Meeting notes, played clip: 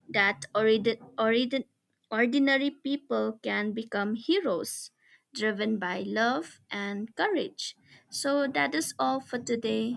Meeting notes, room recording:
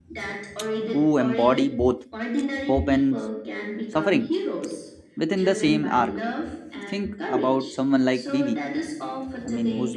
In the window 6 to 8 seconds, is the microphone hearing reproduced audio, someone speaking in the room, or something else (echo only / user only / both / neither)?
both